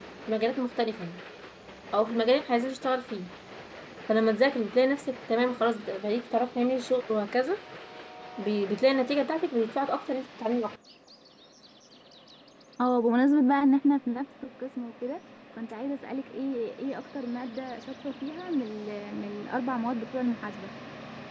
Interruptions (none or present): none